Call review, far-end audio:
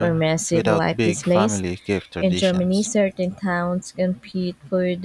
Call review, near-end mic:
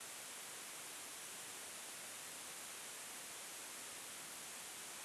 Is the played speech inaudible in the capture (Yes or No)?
Yes